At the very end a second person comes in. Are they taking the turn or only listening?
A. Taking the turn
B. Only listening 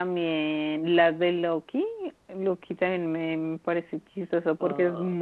B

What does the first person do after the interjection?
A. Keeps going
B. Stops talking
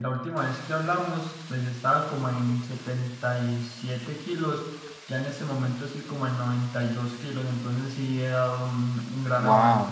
B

